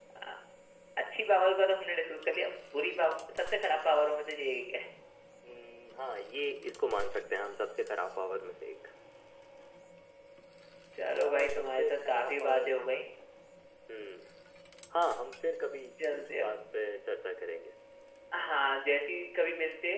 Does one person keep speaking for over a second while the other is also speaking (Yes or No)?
Yes